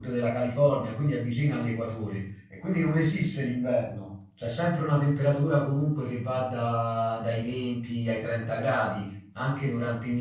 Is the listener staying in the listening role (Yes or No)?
Yes